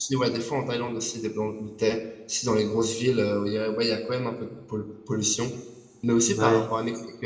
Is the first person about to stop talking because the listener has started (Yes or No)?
No